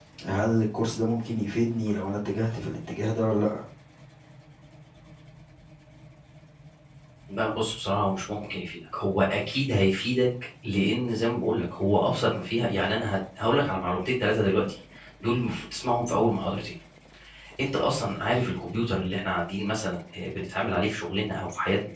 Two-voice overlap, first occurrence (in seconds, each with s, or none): none